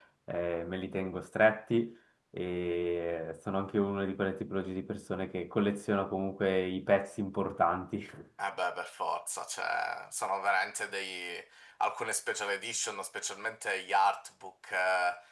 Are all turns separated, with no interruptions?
Yes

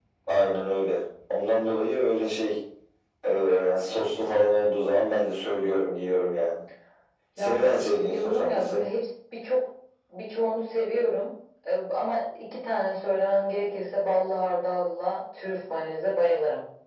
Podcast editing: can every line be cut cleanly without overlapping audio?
No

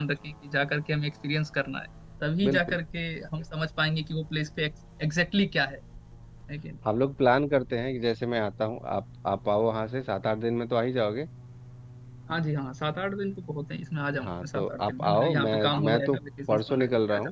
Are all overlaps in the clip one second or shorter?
No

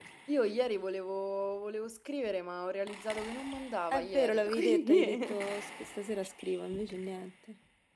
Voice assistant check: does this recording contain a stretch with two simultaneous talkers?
Yes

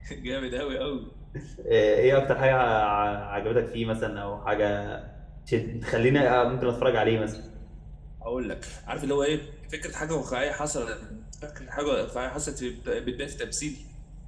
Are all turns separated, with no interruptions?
Yes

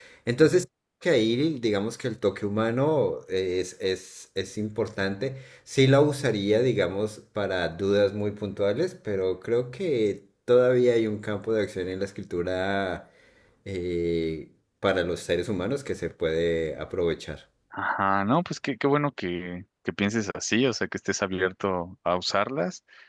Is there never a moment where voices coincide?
Yes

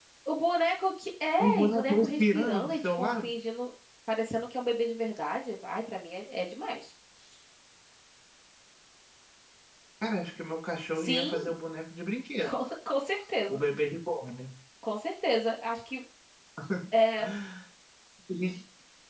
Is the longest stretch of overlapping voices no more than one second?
No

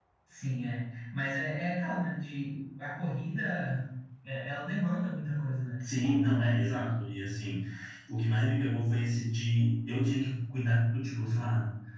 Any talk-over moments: No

